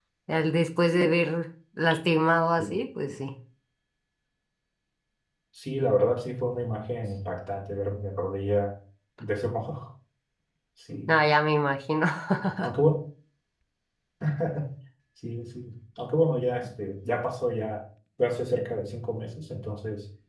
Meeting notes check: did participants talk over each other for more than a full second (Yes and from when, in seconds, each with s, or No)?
No